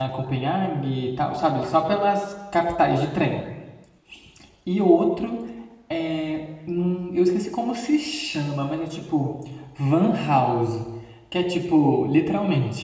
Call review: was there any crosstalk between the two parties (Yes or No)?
No